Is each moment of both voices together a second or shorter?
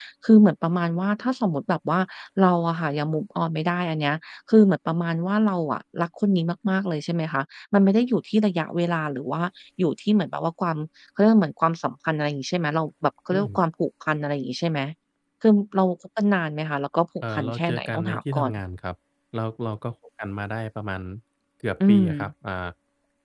No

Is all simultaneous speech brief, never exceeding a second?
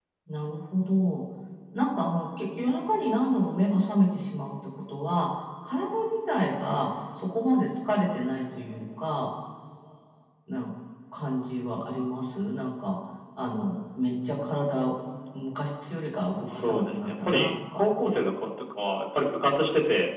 No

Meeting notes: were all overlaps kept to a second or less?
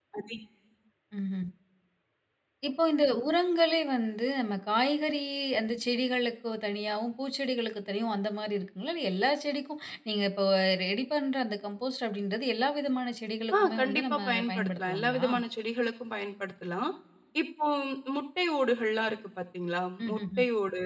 No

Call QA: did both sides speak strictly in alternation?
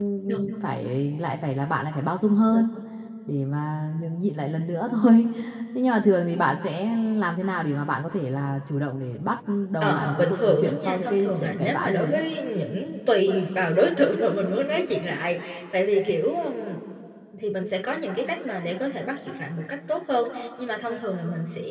No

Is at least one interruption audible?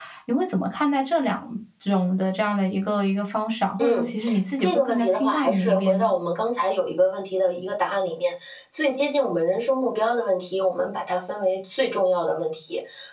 Yes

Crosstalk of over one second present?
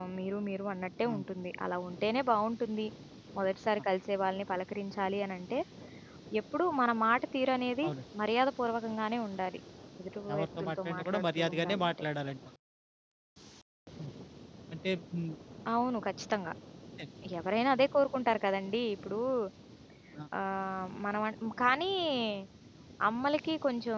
Yes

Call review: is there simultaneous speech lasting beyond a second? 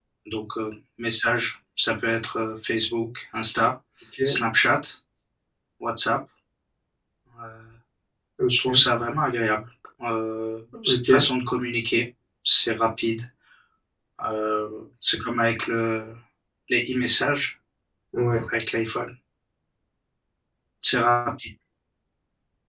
No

